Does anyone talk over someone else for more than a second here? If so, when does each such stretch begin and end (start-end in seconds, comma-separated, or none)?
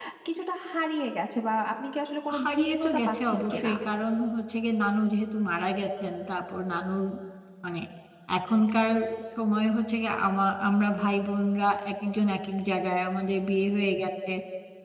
2.4-3.7